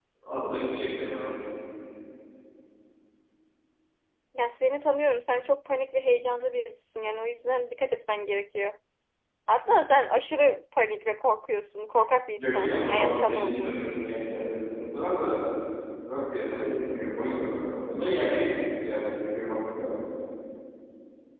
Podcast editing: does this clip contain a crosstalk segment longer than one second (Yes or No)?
Yes